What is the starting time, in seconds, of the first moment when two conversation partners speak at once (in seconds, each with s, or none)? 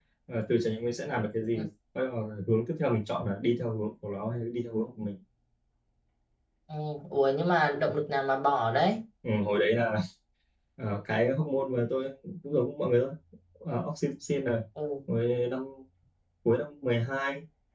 none